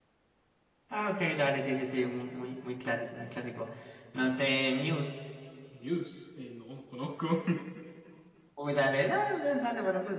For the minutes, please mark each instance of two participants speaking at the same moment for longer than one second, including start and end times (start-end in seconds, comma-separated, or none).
none